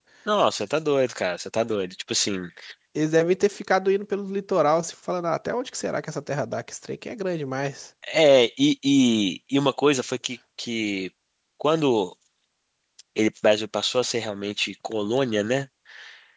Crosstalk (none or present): none